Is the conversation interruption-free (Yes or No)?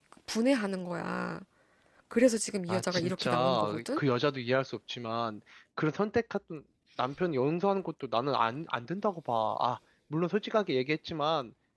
No